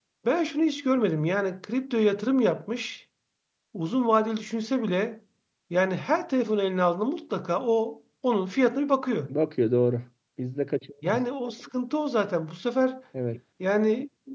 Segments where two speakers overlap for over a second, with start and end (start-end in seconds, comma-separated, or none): none